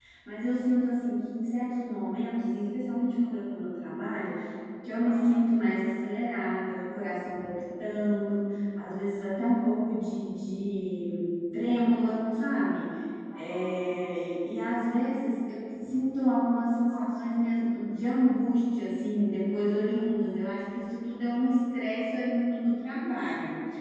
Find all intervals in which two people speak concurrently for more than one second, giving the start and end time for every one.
none

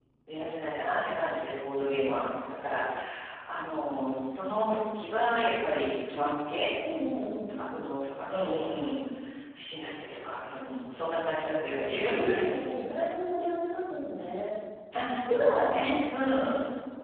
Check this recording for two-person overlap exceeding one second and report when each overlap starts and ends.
none

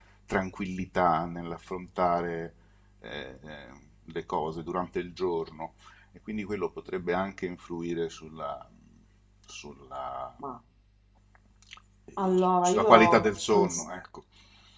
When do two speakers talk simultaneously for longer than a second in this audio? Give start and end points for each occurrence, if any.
12.2-13.7

